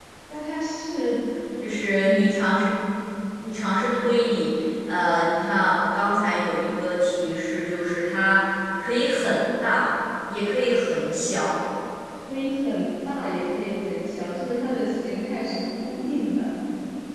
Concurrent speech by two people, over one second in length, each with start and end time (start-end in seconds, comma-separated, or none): none